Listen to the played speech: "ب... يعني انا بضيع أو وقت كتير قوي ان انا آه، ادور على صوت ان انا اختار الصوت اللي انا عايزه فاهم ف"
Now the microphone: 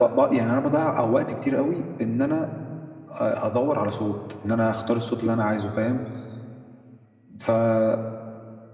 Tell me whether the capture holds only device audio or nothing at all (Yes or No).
Yes